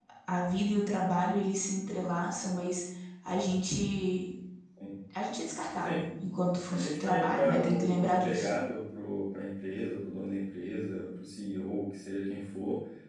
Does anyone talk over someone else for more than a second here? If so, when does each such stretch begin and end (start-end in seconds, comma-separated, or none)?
6.7-8.5